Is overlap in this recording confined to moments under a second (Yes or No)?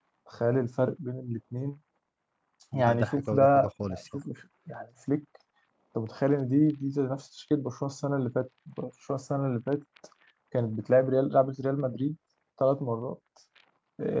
No